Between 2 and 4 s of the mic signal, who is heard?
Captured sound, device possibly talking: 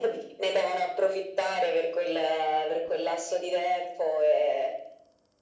echo only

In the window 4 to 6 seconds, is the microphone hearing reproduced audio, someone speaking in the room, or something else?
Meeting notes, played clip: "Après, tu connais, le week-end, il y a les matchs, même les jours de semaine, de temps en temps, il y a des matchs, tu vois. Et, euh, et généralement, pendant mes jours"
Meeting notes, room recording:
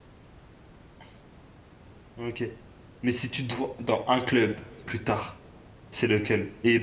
user only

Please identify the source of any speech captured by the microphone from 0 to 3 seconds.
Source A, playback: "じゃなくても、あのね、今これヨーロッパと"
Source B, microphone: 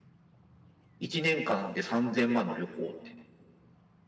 user only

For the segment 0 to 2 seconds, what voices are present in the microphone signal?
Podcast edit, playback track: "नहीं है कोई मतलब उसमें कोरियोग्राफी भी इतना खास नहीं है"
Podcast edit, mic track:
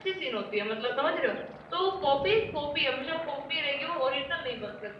user only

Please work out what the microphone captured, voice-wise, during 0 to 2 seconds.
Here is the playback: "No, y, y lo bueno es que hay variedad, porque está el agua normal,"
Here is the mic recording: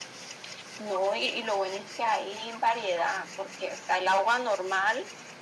echo only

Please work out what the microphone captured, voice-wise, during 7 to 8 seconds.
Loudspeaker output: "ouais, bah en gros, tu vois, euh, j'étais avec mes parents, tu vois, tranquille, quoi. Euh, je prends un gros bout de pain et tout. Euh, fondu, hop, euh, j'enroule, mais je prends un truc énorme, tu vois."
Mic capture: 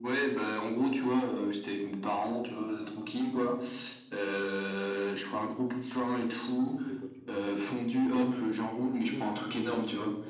both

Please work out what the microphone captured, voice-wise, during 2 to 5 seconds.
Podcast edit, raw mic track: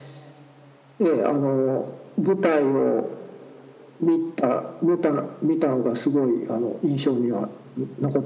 echo only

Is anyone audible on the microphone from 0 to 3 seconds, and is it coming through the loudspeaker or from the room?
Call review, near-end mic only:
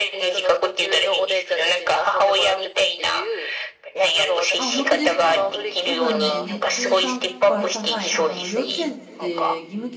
echo only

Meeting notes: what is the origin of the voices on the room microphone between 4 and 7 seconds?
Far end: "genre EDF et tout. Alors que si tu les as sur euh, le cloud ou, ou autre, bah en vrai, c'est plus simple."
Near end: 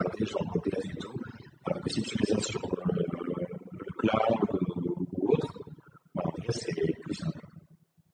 echo only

